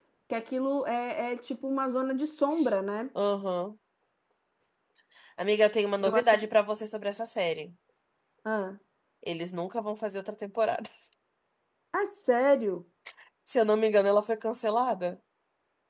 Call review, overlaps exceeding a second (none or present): none